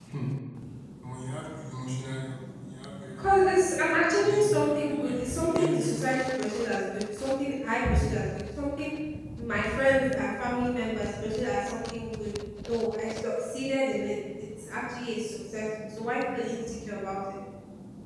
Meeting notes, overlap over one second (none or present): present